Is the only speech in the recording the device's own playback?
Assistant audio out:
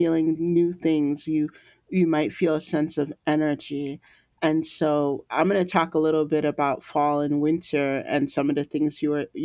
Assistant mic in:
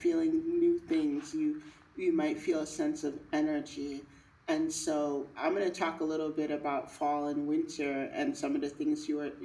Yes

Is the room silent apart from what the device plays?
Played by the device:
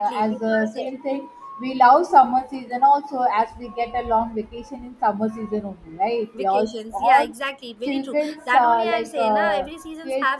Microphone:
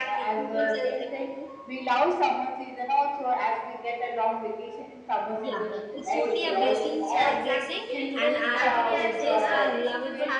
No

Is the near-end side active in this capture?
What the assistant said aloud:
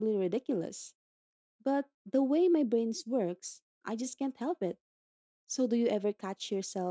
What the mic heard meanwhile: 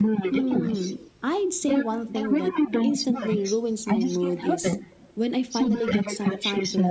Yes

